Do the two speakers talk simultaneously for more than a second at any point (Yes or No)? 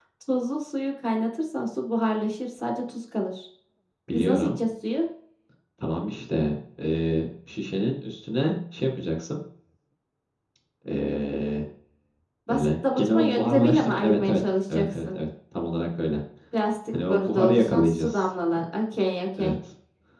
Yes